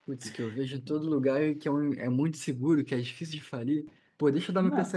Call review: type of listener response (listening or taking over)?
listening